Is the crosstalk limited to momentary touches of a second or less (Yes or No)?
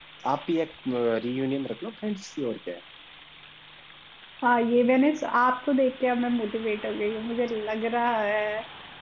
Yes